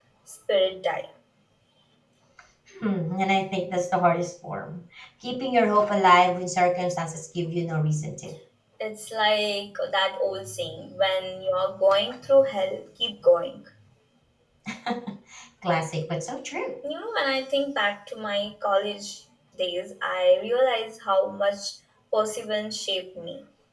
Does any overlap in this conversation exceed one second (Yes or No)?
No